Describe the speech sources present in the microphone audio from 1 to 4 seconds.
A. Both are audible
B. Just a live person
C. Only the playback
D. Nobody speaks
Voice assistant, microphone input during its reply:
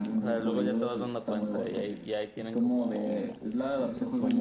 A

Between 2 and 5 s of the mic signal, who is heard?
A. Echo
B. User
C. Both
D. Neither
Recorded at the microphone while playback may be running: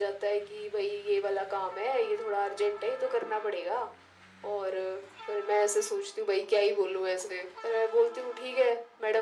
A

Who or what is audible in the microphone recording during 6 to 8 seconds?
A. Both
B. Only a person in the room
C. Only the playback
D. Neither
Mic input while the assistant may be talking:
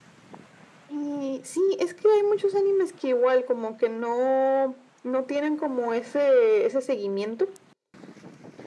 C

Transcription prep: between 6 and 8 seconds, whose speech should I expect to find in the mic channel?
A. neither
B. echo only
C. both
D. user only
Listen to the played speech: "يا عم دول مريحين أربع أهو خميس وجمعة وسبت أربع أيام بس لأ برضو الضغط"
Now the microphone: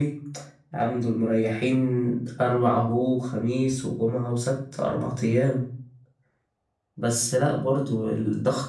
B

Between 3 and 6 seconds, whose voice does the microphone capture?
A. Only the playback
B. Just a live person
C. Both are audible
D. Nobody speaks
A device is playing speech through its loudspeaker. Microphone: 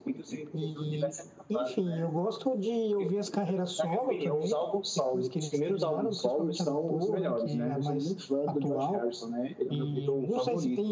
A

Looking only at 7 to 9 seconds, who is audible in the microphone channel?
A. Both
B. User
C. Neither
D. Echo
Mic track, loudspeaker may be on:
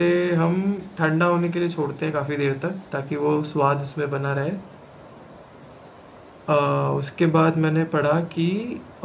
B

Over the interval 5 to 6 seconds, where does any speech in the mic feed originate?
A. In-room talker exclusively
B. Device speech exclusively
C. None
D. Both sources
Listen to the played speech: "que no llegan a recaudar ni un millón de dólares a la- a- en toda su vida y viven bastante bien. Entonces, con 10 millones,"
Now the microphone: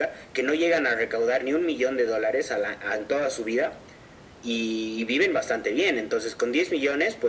B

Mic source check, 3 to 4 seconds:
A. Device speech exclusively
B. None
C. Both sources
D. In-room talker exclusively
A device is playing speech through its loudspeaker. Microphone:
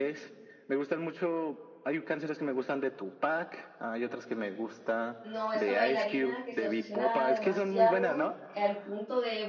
A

